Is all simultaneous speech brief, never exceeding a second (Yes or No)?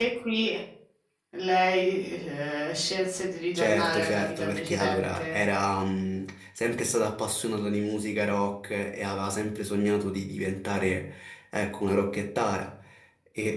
No